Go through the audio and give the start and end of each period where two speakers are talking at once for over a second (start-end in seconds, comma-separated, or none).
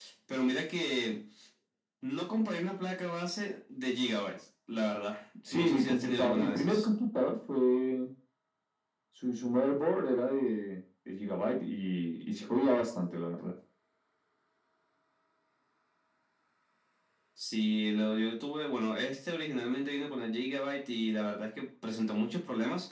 5.5-6.9